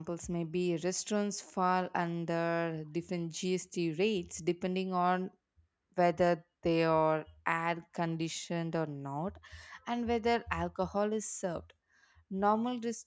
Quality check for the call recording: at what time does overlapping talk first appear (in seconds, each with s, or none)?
none